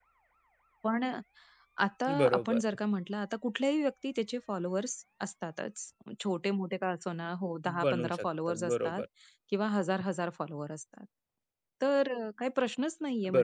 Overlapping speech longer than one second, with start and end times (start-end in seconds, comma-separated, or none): 7.8-9.0